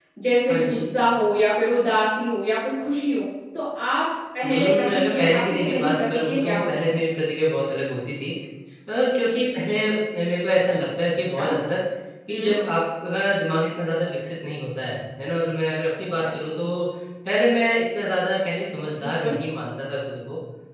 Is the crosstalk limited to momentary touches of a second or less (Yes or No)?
No